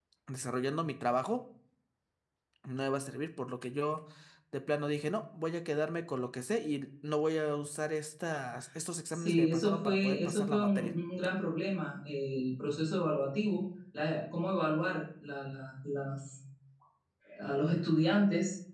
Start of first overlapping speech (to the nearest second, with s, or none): 9 s